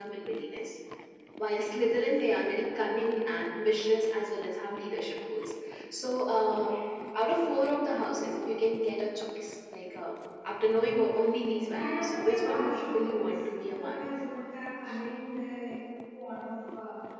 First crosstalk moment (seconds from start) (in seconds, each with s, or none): 11.7 s